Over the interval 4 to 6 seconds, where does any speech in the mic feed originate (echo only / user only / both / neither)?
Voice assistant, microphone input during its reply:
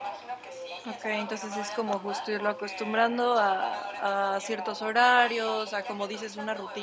both